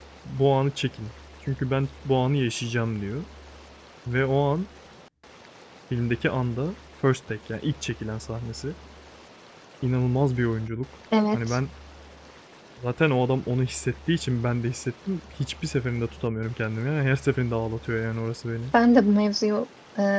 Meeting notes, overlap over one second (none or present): none